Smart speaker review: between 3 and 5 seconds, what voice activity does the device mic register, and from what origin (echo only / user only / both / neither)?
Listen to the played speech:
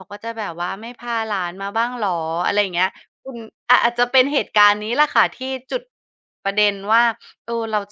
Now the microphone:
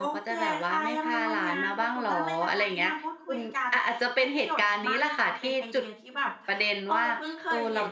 both